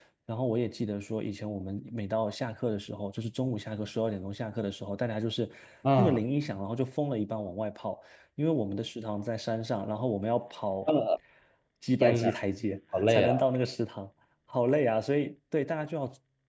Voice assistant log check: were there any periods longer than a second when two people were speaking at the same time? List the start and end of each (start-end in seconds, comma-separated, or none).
none